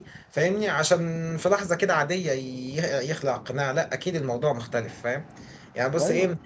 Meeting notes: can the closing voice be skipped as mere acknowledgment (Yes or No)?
Yes